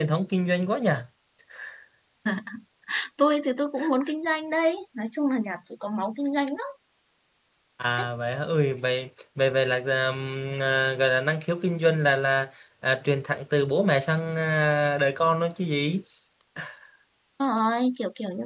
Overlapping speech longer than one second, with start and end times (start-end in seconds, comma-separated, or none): none